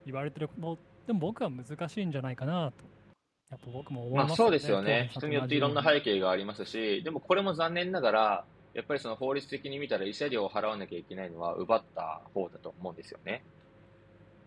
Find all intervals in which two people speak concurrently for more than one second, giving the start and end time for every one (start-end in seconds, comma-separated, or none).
4.1-5.9